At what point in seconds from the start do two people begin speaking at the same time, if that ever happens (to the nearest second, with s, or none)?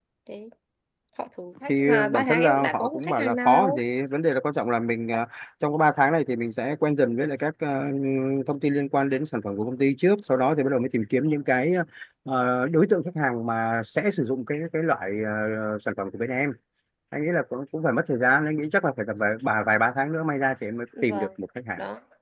2 s